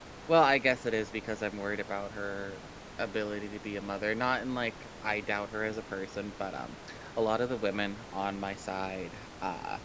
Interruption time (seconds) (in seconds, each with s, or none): none